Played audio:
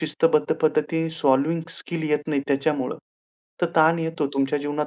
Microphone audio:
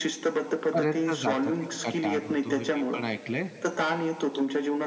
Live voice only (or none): पर्यंत जातात इतका ताण होतो. हे मी पण ऐकलंय.